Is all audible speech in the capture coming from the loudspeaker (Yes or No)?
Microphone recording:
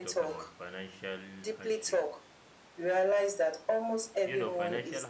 No